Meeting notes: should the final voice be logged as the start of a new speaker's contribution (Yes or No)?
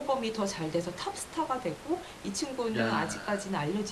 No